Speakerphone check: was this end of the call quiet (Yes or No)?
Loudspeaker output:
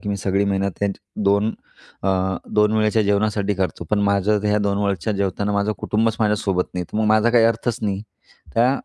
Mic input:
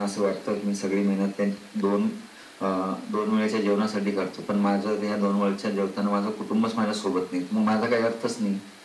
Yes